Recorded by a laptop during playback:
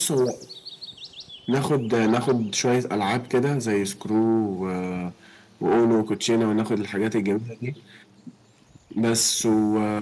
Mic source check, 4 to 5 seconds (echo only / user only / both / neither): echo only